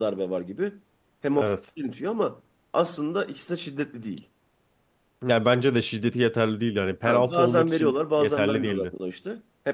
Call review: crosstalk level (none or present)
present